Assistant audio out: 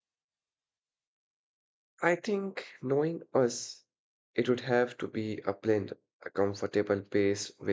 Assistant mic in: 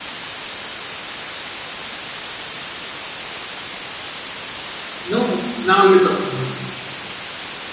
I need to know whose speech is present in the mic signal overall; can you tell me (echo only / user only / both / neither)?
user only